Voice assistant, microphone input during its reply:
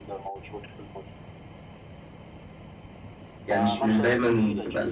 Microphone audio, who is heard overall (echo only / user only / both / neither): both